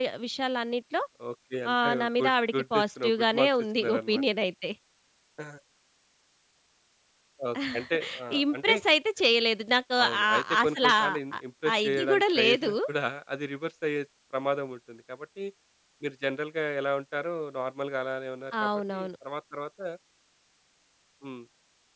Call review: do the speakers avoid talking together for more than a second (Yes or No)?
No